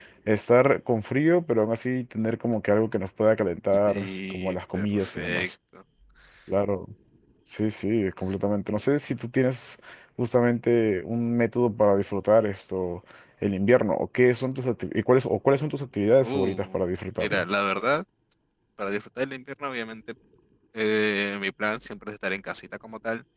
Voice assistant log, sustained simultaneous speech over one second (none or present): present